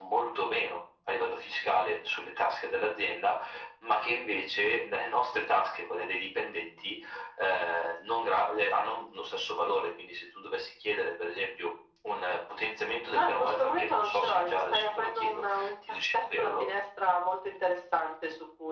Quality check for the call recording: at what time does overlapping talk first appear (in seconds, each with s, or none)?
13.1 s